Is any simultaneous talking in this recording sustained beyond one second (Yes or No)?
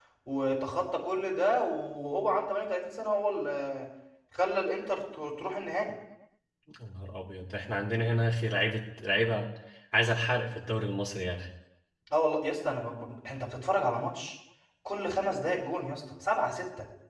No